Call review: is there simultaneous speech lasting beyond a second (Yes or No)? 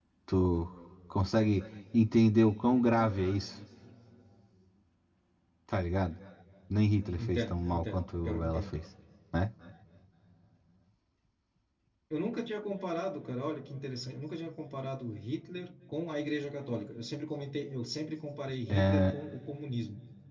Yes